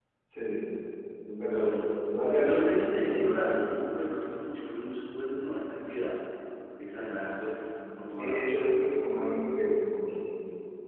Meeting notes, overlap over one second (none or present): present